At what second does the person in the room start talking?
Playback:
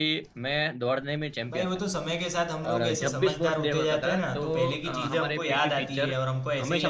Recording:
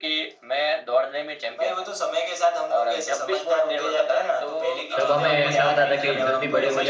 5.0 s

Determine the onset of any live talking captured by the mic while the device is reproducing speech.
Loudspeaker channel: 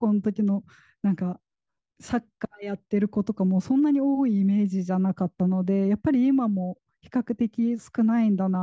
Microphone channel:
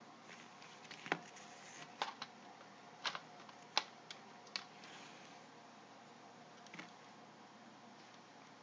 none

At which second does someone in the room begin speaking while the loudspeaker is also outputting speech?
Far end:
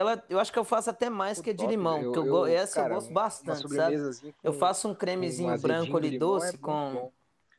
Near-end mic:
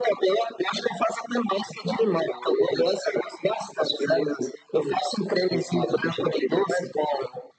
none

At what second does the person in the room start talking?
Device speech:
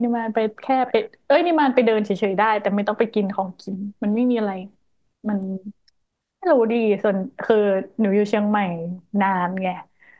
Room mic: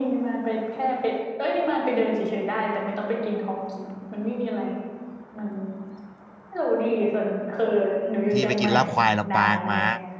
8.3 s

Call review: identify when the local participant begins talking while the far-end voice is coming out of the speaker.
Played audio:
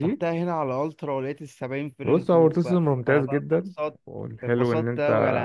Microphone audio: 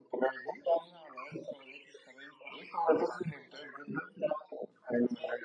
none

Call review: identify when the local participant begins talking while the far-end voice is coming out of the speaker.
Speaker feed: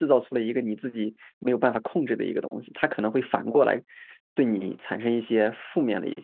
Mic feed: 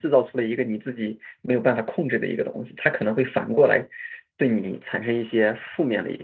none

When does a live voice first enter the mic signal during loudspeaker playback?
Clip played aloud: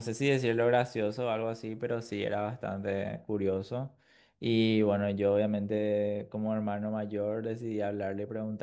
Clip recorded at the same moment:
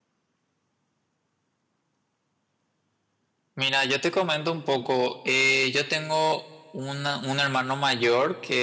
3.5 s

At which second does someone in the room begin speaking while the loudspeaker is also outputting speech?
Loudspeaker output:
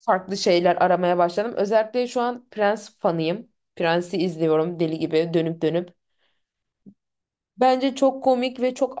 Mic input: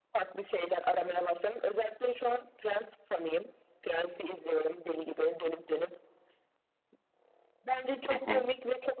8.1 s

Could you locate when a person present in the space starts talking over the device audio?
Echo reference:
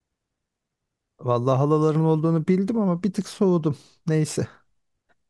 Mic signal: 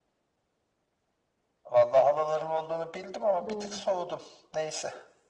3.4 s

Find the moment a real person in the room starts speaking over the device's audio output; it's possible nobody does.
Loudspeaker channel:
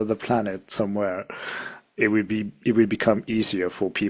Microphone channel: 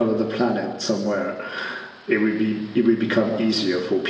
none

